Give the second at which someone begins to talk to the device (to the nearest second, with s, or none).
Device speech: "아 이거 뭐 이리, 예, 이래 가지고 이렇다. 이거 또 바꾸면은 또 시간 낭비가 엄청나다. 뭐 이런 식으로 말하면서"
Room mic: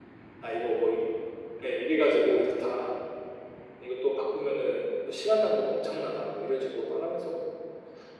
none